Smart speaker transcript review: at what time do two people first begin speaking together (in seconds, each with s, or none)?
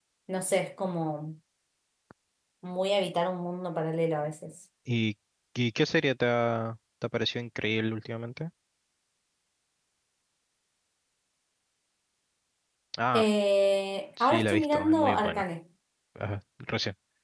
14.2 s